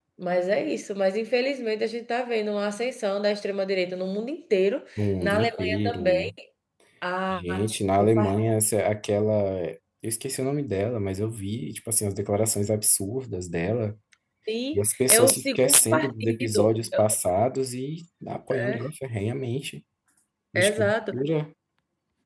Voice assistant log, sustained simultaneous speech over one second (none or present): present